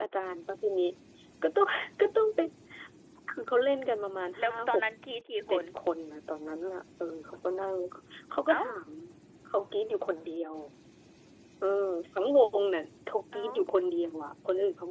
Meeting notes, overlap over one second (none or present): none